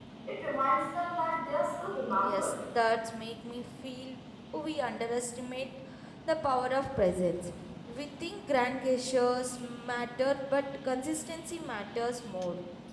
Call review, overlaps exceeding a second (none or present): none